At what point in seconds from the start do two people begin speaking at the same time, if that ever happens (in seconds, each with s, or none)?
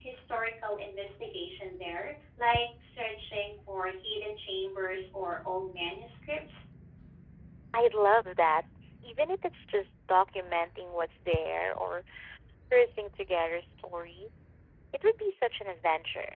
none